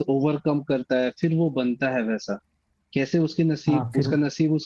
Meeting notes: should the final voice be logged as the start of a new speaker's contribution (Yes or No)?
No